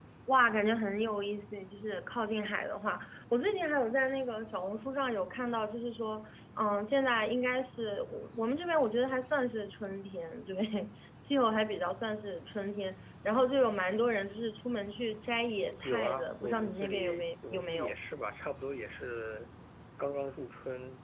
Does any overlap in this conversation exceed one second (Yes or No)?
Yes